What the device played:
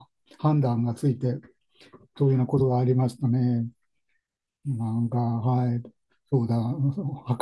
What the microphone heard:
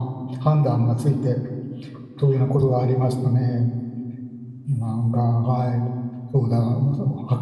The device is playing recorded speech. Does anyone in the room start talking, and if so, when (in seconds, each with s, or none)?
none